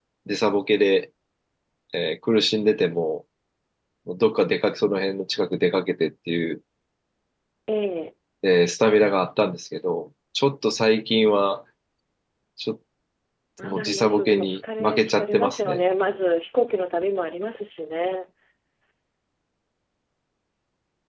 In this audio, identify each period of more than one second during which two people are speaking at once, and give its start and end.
13.6-15.8

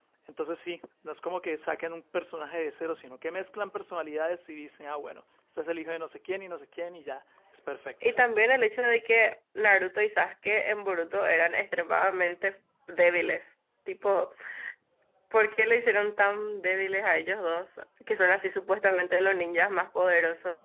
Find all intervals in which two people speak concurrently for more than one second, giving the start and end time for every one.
none

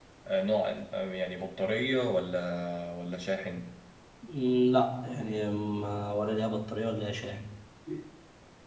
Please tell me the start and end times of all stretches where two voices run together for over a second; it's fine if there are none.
none

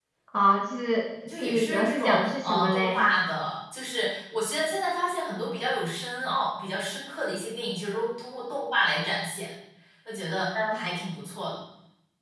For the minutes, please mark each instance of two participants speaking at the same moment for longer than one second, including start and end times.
1.3-3.0

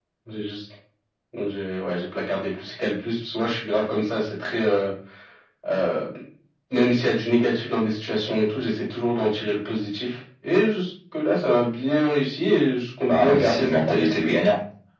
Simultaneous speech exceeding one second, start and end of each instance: 13.1-14.4

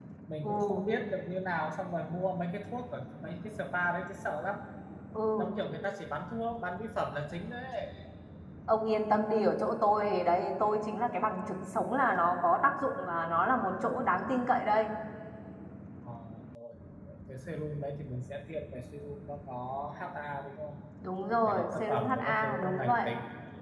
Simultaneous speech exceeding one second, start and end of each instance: 21.4-23.1

